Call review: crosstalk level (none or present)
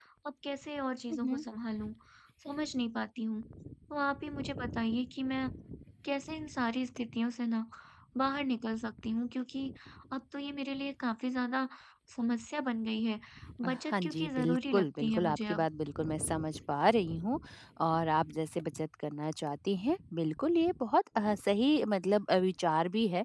present